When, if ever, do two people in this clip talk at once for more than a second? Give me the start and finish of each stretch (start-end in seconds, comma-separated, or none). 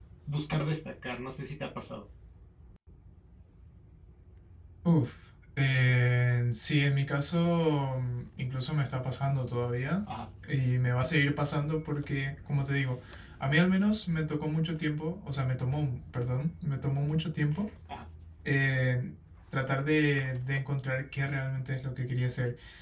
none